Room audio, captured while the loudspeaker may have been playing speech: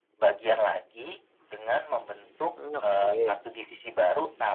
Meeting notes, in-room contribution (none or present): present